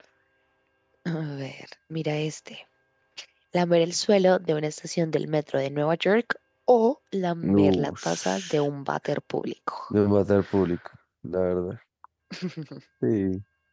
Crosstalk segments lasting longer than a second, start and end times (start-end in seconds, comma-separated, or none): 7.4-8.6